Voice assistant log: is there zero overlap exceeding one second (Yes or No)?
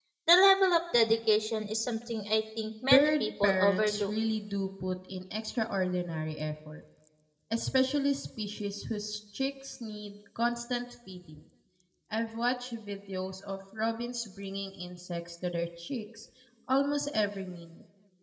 No